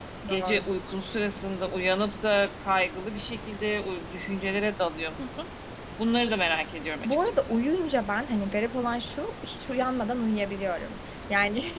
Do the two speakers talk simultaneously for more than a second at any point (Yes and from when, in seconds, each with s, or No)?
No